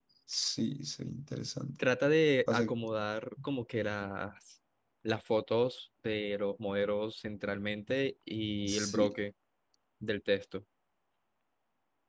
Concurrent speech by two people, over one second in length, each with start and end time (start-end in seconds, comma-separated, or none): none